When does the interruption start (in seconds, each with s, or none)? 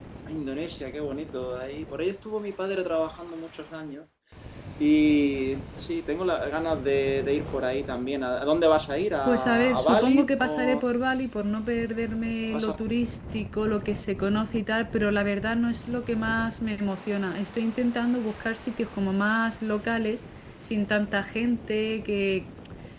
9.2 s